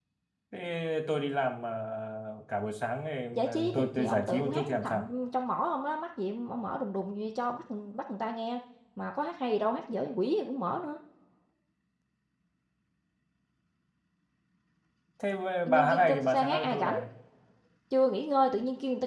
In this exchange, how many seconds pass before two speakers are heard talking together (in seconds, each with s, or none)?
3.3 s